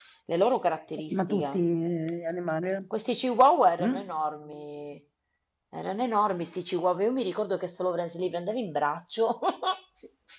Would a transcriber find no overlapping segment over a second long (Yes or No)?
Yes